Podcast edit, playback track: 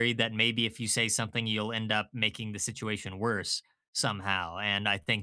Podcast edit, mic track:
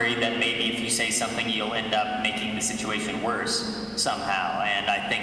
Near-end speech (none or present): none